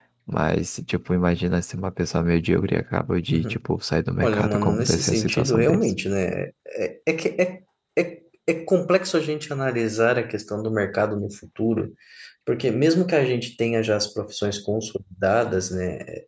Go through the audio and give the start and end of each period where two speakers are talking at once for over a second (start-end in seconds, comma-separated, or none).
4.2-5.9